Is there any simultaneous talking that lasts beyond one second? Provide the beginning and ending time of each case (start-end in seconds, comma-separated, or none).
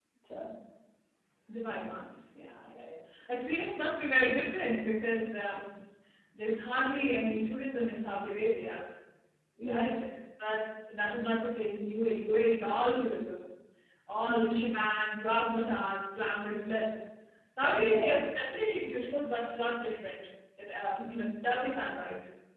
none